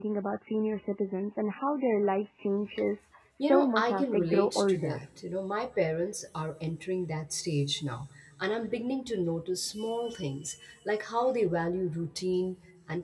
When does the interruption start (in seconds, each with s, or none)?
3.4 s